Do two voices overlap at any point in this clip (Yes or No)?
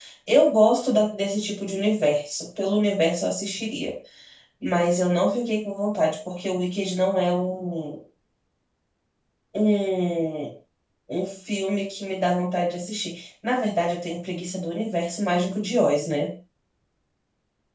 No